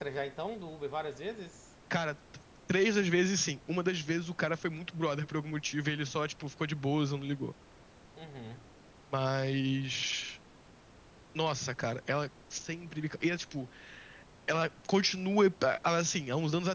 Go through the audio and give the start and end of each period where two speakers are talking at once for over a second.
none

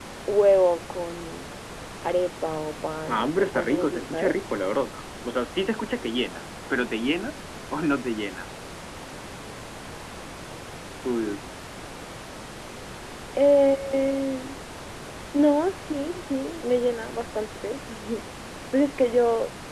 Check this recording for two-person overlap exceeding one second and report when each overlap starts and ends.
3.1-4.4

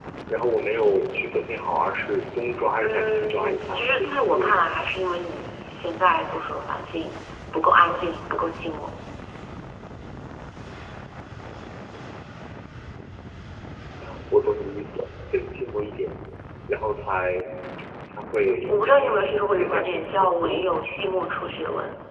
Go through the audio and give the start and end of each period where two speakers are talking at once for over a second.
2.8-4.7, 18.7-21.0

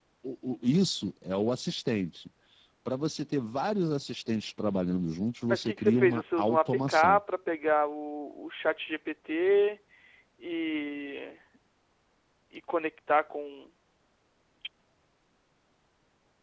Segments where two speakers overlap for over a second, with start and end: 5.5-7.2

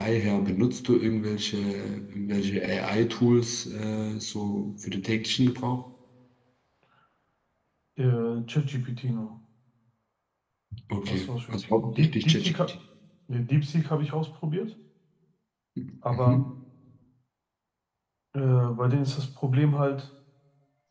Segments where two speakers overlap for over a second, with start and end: 11.1-12.7

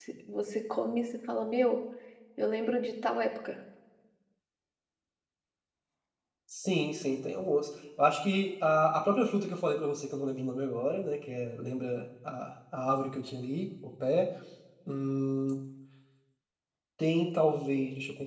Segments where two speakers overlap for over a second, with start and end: none

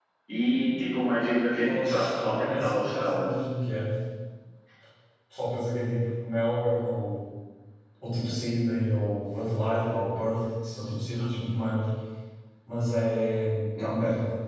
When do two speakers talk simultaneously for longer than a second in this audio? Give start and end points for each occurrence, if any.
1.6-3.2

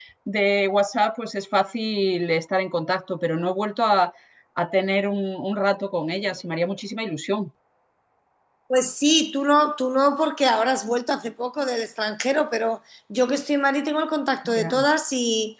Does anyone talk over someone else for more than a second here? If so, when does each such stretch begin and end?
none

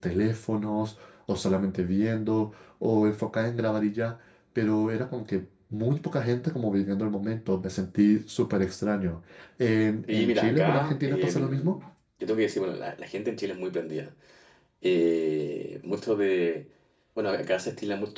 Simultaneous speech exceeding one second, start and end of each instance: 10.1-11.8

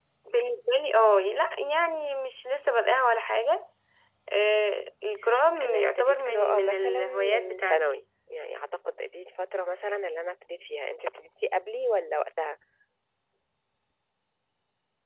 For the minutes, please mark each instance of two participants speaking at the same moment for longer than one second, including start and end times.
5.6-8.0

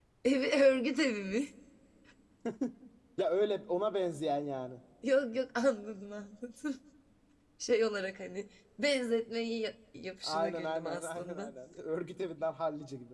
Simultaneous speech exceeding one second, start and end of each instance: 10.2-11.5

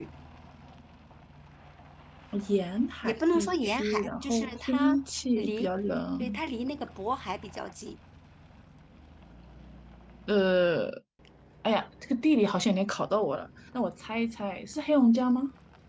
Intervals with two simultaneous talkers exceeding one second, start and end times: 3.0-4.9

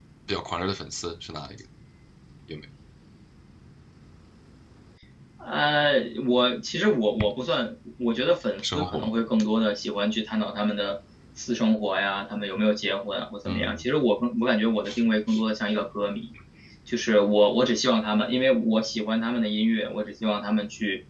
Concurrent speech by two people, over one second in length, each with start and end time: none

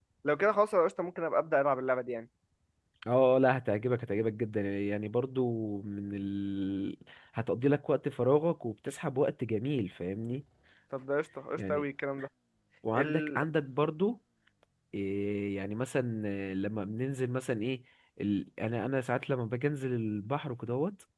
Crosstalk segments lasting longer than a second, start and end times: none

